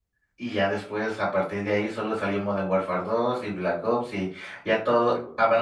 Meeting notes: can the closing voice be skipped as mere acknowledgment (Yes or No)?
Yes